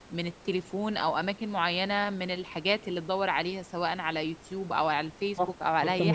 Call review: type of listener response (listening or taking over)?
taking over